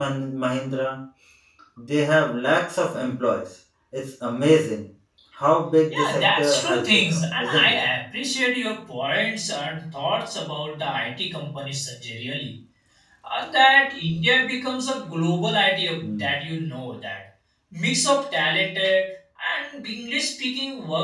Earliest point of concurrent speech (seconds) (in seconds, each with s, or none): 5.9 s